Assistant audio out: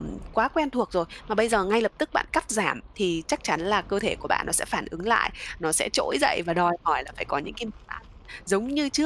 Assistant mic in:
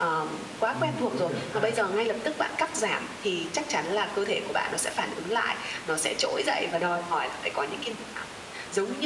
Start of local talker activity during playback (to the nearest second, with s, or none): 1 s